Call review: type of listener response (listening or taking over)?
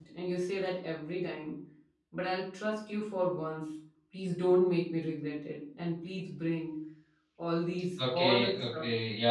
taking over